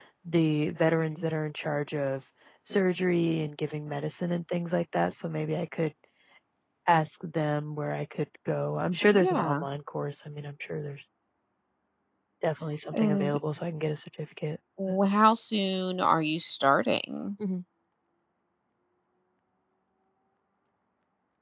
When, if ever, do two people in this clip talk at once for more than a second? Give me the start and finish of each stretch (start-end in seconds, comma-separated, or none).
none